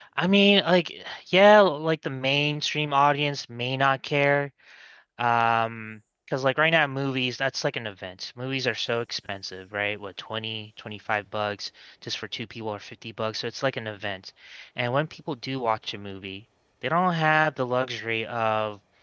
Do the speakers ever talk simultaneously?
No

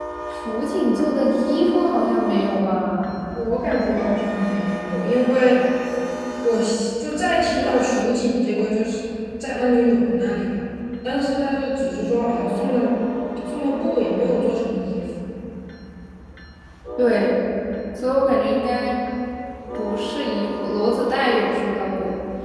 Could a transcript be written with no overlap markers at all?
Yes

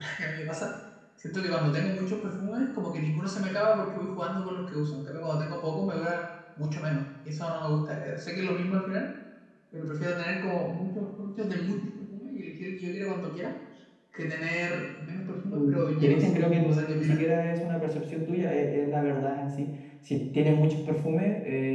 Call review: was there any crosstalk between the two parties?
Yes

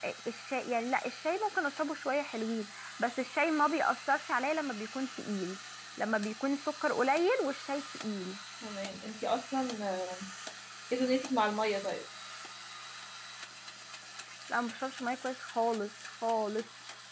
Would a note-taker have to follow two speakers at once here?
No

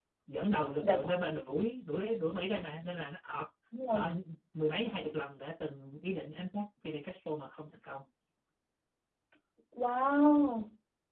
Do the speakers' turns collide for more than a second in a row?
No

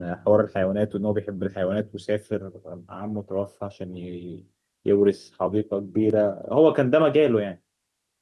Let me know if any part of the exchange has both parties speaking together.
No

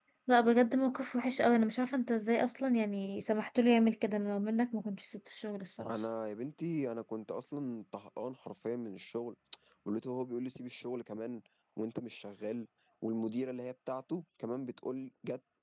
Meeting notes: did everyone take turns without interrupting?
Yes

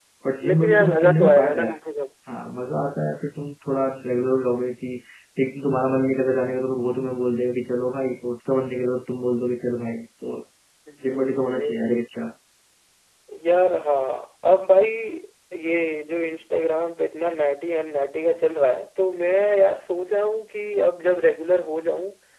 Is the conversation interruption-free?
No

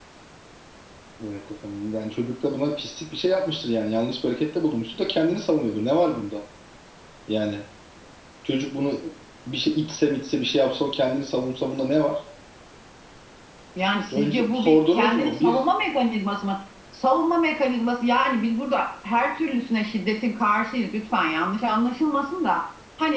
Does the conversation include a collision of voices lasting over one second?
Yes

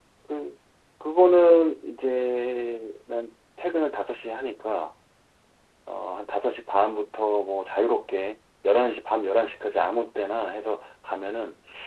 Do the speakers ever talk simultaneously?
No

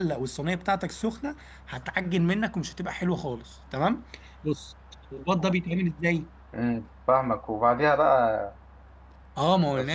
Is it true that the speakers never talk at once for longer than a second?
Yes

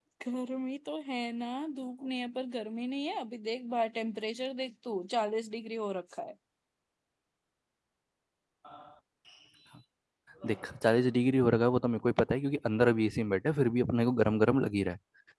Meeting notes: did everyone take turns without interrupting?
Yes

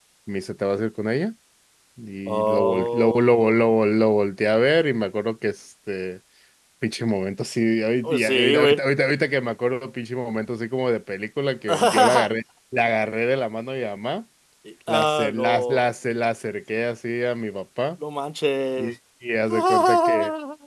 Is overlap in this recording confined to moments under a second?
No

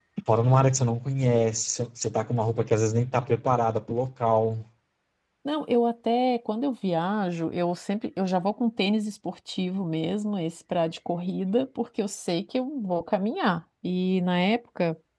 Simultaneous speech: No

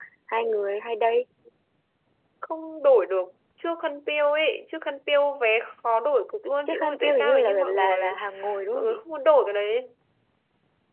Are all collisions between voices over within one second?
No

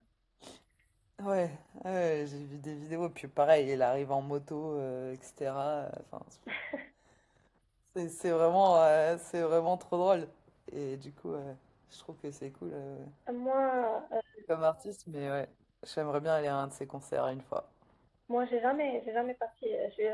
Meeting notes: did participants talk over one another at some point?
No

